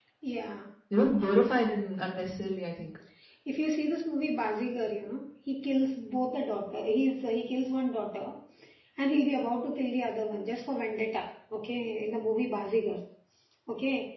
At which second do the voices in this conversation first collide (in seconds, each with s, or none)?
none